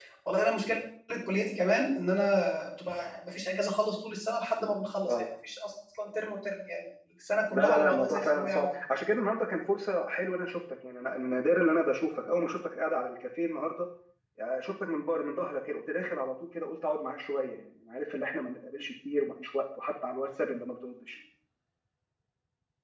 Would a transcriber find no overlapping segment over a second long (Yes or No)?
No